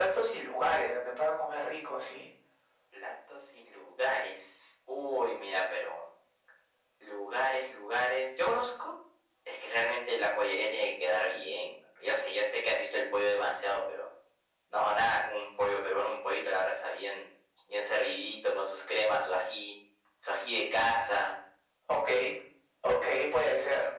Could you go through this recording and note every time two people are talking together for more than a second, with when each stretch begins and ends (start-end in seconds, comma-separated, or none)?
none